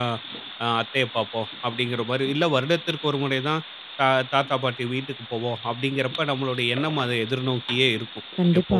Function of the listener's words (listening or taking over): listening